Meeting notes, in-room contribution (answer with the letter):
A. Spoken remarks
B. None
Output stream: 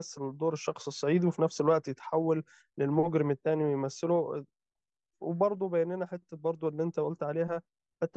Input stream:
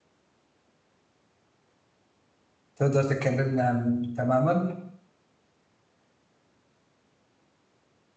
A